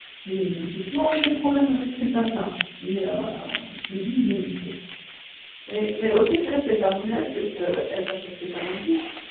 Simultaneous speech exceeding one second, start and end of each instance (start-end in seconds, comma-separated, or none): none